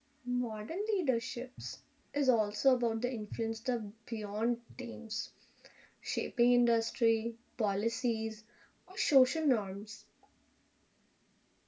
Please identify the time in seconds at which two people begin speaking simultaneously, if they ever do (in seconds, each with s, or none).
none